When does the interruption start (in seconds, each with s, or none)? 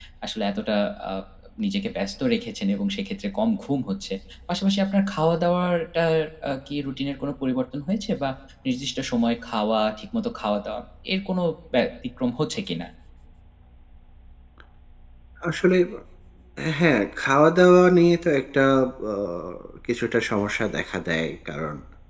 none